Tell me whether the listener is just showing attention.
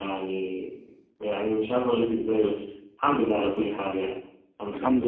No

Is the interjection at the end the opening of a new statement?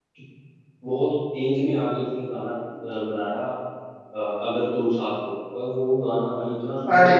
Yes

